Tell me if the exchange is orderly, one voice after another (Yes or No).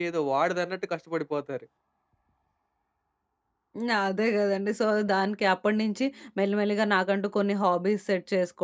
Yes